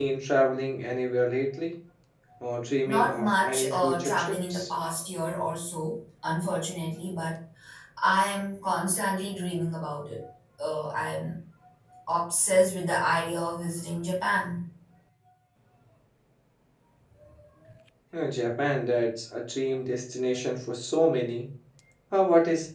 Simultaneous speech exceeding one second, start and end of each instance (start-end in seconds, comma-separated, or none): 2.9-4.7